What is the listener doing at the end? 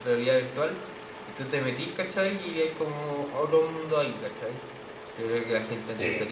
listening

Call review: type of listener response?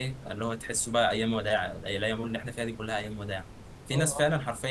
listening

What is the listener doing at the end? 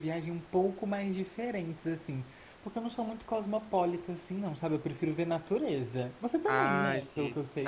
taking over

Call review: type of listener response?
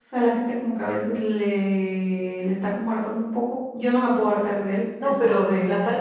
taking over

